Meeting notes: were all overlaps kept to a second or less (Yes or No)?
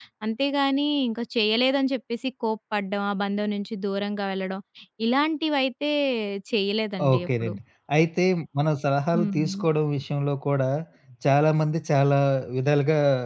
Yes